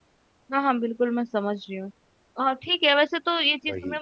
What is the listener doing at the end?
listening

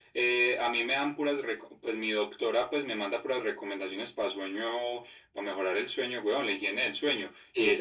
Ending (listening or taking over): listening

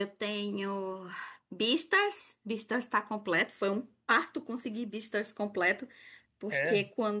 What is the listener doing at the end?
listening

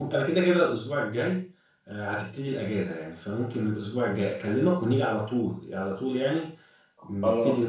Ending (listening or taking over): taking over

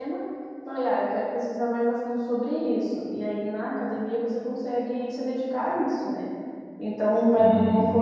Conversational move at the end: listening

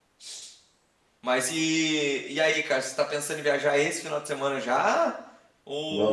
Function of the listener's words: taking over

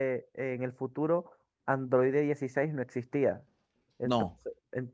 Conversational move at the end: listening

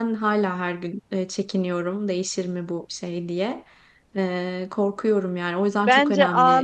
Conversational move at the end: taking over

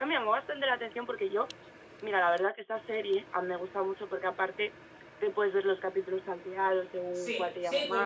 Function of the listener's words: taking over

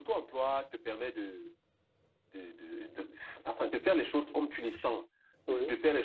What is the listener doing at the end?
listening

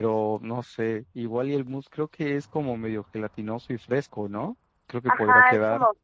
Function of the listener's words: taking over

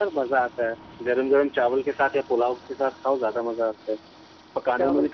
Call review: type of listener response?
listening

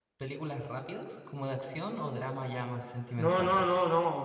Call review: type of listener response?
taking over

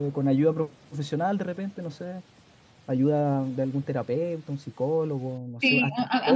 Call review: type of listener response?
taking over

